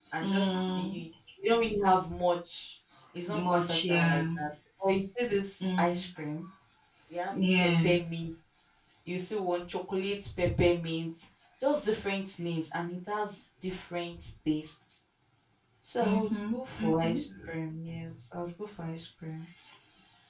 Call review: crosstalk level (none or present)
present